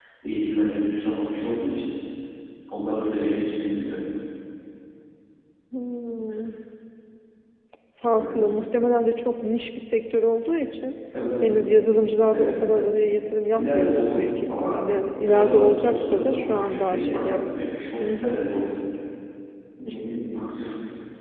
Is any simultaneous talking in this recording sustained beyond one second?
Yes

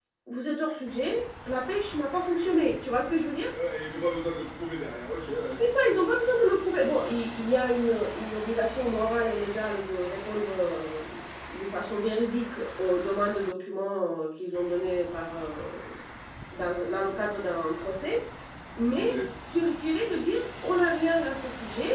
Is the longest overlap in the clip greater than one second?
No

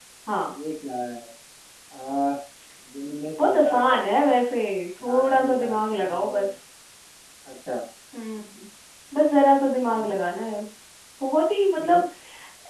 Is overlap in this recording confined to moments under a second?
No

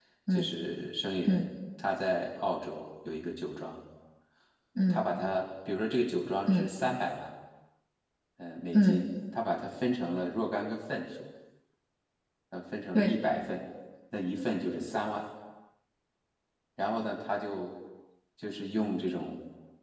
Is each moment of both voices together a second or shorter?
Yes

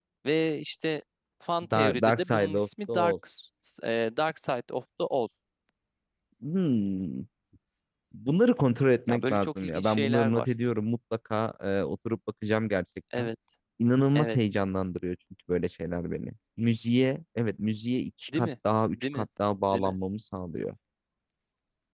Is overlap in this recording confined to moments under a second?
No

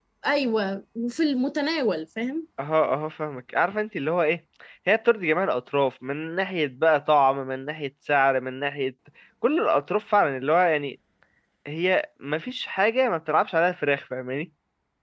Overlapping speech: No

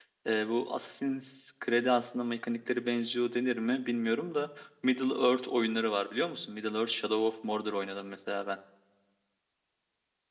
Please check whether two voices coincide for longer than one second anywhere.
No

